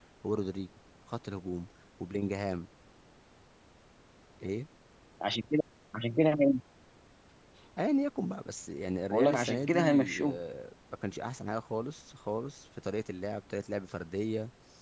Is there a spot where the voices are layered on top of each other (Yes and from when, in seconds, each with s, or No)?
Yes, from 9.1 s